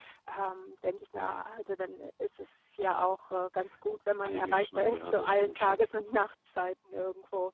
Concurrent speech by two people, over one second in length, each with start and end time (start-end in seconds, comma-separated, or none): 4.2-5.9